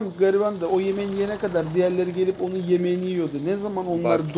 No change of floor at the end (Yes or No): Yes